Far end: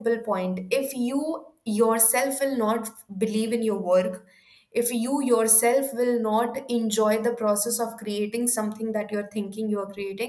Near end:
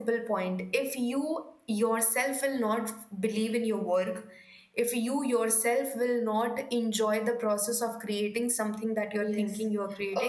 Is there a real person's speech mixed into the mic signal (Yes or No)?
Yes